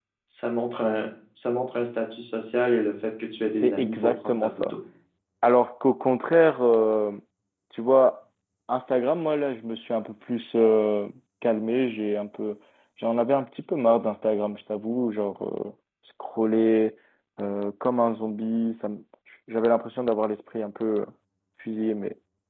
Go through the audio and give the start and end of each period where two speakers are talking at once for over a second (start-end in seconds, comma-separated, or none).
3.5-4.7